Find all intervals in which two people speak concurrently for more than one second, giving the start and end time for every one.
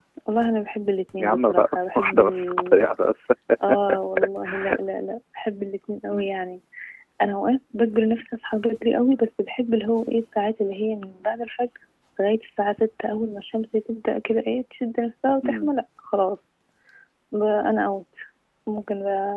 1.2-2.9

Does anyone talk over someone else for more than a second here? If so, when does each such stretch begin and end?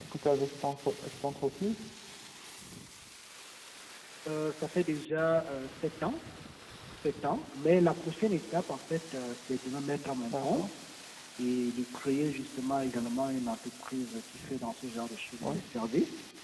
none

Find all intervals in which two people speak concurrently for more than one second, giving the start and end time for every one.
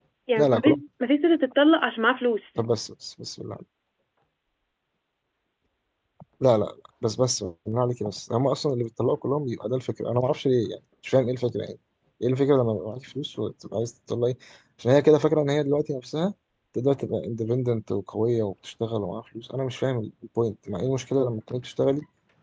none

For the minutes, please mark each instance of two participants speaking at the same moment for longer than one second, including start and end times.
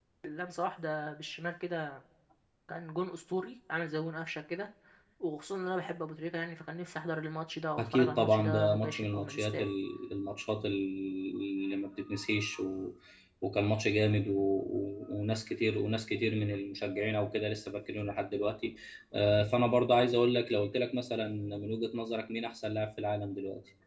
7.8-9.7

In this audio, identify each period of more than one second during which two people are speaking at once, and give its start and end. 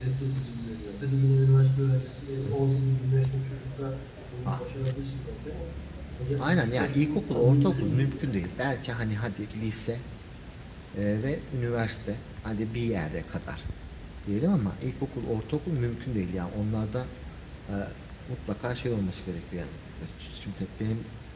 6.4-8.2

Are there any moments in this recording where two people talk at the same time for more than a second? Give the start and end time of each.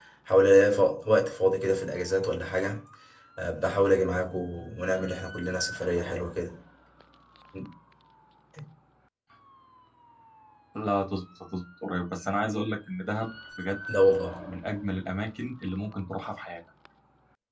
none

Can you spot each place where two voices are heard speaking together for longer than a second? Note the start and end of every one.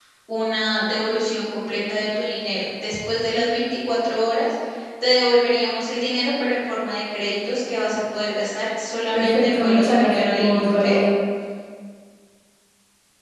9.1-10.8

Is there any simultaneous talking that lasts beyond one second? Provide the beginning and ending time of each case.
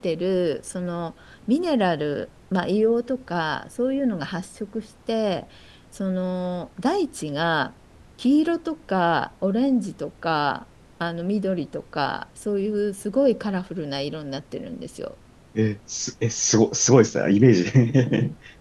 none

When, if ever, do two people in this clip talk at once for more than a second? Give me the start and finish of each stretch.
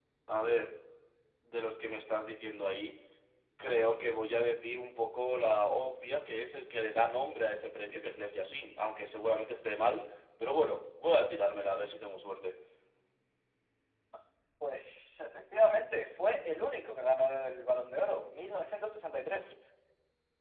none

